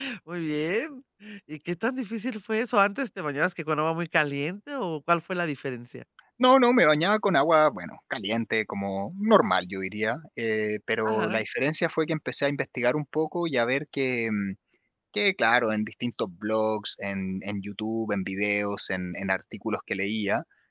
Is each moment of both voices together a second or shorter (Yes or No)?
Yes